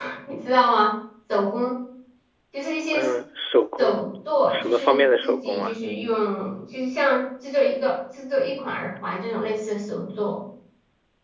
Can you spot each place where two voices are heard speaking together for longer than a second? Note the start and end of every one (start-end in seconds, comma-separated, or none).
4.5-5.7